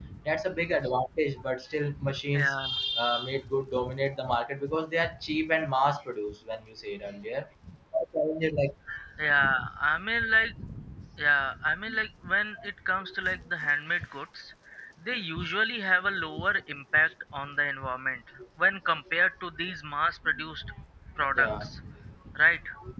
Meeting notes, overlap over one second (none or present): none